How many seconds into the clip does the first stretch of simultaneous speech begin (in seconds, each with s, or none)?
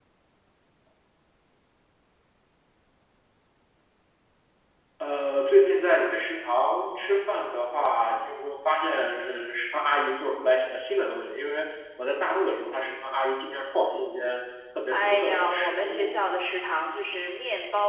14.9 s